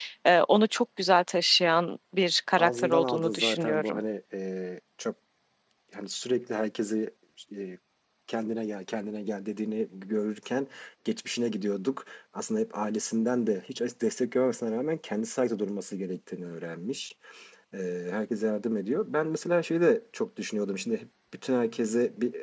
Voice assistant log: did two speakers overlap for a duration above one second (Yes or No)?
Yes